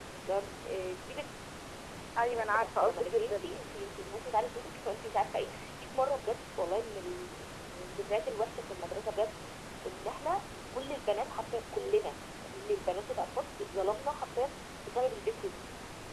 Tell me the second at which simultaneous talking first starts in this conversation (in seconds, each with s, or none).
2.2 s